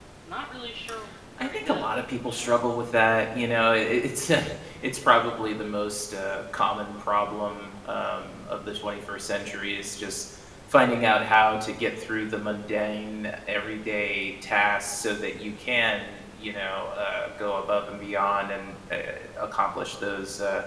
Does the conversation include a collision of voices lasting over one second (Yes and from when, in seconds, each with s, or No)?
Yes, from 1.4 s